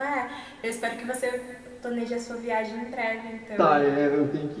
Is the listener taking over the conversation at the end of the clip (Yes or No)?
Yes